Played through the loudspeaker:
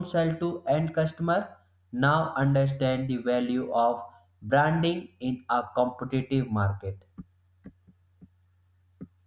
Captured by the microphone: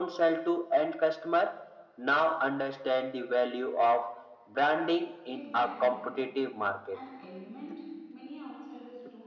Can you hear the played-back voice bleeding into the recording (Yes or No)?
Yes